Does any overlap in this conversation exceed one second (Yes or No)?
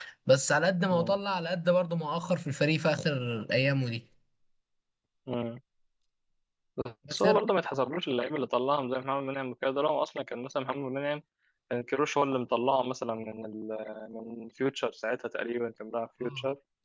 No